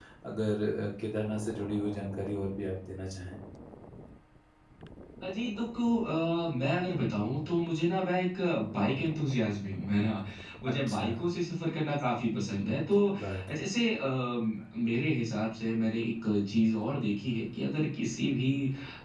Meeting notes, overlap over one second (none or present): none